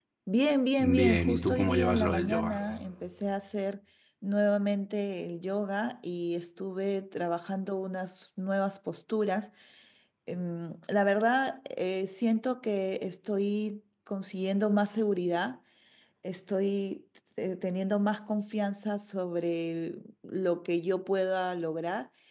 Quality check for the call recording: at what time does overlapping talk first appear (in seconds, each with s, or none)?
0.8 s